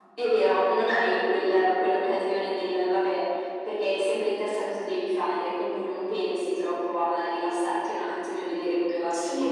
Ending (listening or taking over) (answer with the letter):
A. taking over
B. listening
A